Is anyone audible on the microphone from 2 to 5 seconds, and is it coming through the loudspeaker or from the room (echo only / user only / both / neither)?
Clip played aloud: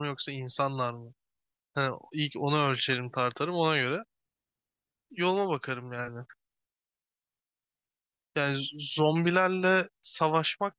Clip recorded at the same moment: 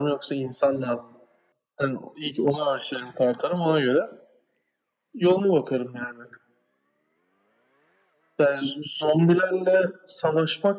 echo only